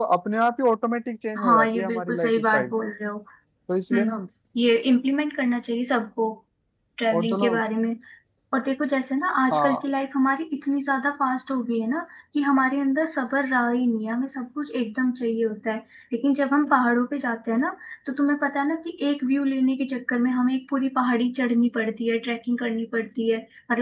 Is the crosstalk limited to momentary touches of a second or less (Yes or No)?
No